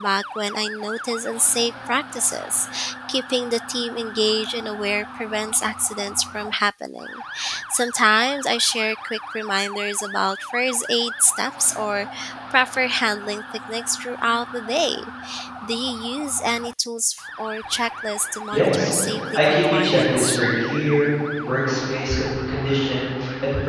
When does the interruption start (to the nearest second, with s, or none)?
19 s